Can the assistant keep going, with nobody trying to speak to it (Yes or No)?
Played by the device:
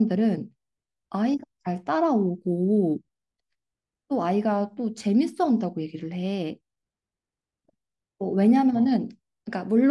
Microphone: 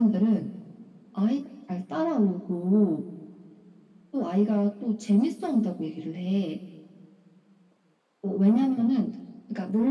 Yes